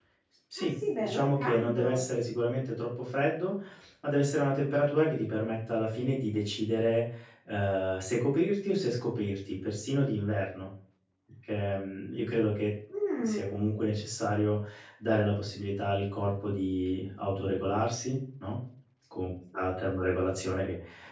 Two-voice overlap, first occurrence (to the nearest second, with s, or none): 1 s